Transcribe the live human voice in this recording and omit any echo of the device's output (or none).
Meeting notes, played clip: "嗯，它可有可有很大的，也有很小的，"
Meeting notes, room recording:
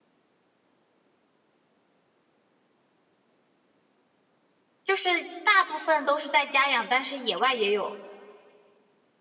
就是大部分都是在家养，但是野外也有，